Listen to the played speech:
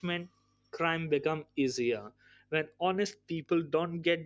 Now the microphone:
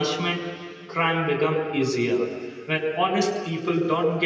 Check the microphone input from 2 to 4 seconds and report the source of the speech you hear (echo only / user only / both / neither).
echo only